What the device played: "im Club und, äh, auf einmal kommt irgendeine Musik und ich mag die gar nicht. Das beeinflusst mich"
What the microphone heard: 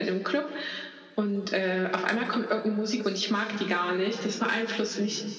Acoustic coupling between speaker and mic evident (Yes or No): Yes